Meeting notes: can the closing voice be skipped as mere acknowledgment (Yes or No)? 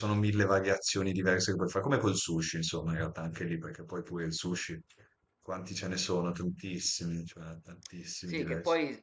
No